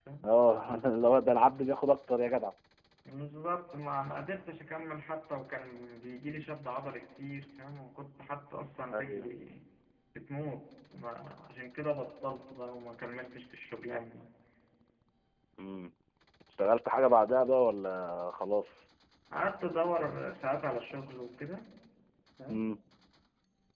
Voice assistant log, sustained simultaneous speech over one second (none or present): none